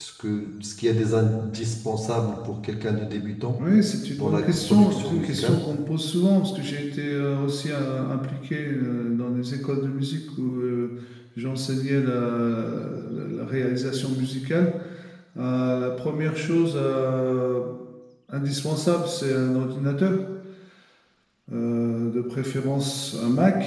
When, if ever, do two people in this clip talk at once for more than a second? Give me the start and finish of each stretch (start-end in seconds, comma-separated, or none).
4.1-5.6